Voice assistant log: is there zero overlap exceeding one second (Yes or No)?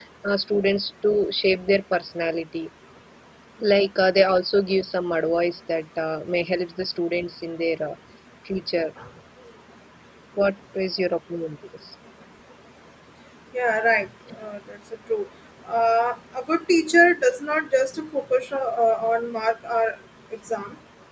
Yes